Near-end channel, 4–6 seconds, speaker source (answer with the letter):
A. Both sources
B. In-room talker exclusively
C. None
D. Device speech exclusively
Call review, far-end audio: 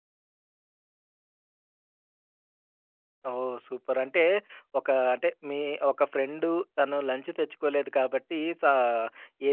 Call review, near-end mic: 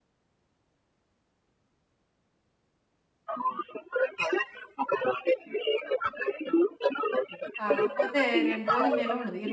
D